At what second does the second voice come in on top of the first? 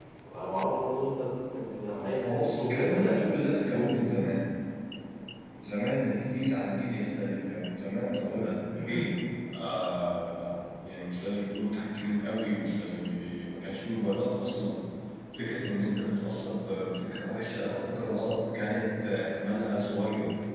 2.2 s

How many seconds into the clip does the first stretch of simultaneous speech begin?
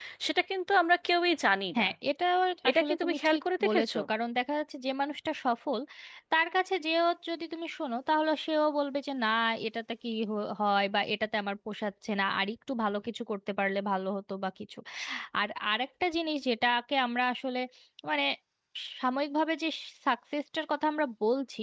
2.7 s

